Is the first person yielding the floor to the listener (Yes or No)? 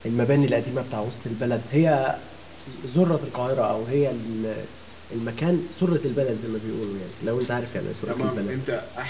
Yes